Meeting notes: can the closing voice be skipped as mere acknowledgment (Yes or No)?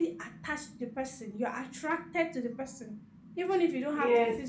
No